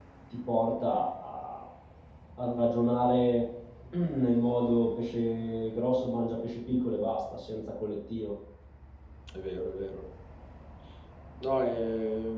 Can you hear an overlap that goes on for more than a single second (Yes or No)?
No